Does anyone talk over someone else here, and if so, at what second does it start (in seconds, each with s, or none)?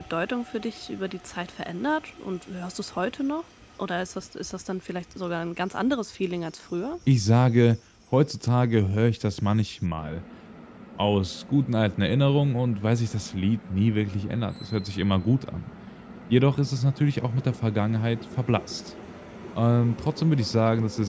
none